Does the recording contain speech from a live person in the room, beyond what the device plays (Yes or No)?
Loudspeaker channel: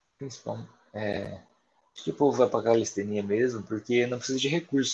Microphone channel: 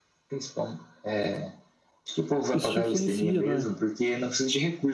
Yes